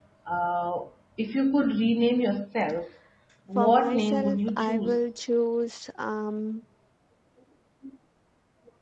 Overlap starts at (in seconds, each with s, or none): 3.5 s